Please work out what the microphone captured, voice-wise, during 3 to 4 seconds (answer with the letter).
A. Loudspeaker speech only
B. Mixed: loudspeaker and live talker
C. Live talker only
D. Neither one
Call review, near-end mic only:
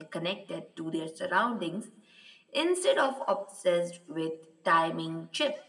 A